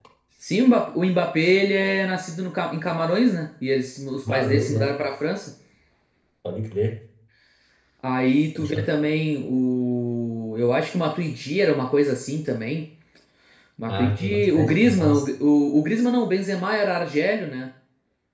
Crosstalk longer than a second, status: present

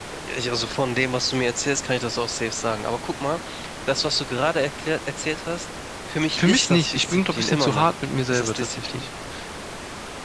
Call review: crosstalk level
present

